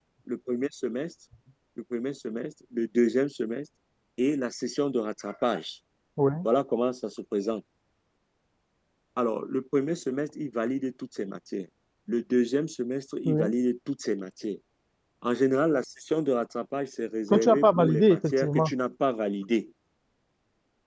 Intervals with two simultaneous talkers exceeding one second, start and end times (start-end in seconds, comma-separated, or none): 17.3-18.7